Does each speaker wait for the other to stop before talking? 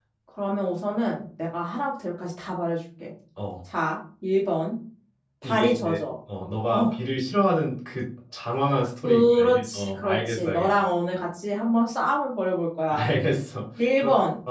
No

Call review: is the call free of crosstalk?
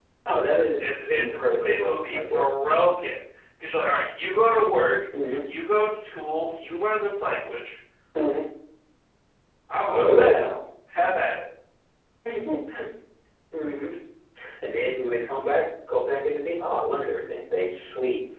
No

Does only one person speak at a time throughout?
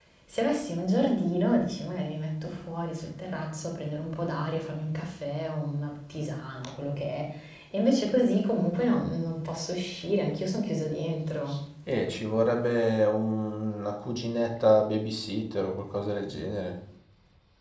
Yes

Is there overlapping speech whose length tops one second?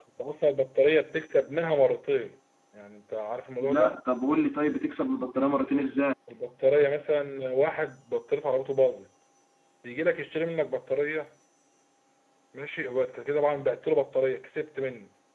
No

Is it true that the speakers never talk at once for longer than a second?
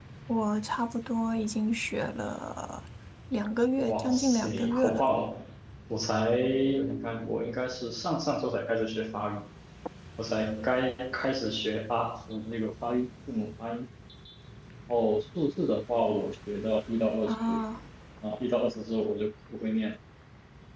No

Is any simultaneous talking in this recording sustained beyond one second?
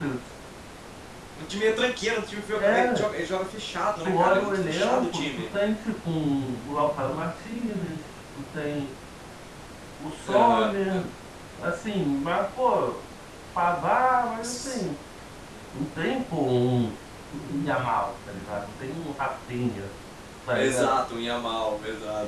Yes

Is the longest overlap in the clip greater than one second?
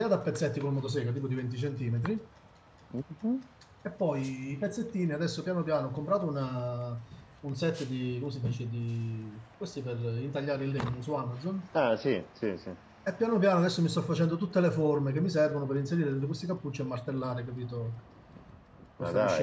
No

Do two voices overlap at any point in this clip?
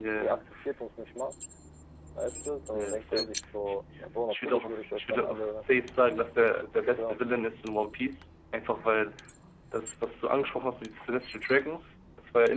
Yes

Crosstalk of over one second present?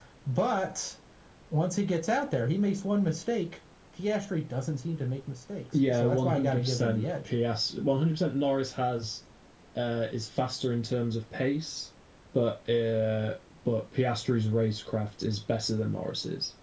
Yes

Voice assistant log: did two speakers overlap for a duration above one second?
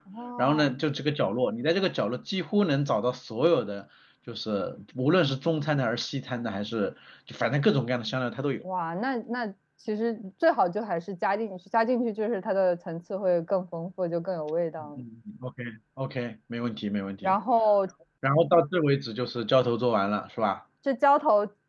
No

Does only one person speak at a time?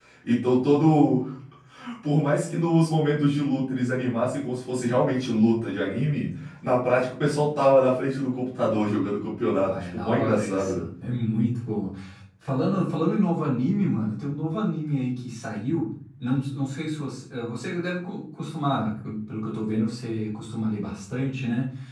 No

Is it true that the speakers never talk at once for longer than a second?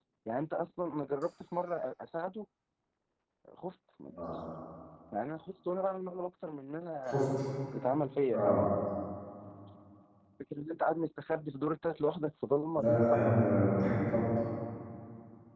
Yes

